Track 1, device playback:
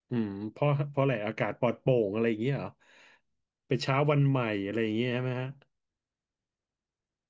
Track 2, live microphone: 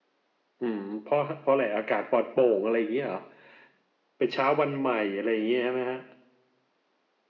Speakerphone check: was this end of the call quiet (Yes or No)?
Yes